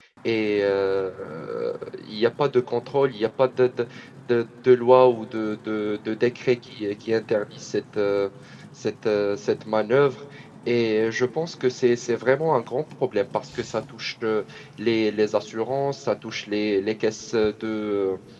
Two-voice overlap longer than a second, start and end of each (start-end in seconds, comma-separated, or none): none